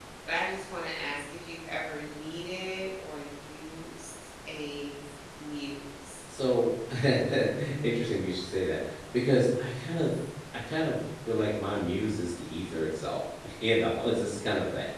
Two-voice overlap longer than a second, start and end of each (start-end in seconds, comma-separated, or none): none